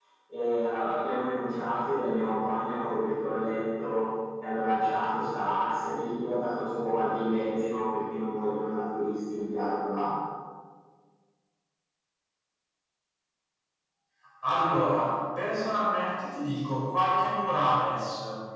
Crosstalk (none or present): none